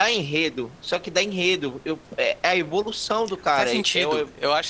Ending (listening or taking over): taking over